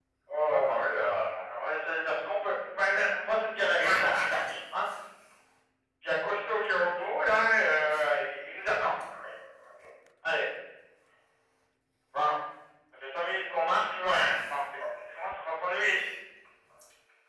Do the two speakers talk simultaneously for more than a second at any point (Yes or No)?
No